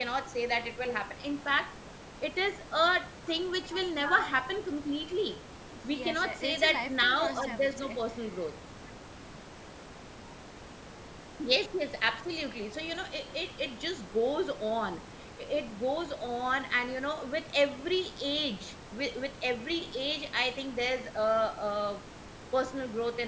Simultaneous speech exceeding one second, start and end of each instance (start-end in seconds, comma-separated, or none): 5.9-8.0